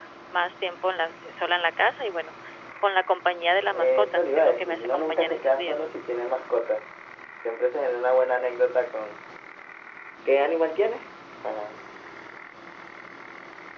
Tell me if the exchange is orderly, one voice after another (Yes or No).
No